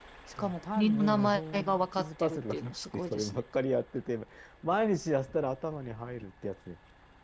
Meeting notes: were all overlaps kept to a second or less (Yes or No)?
No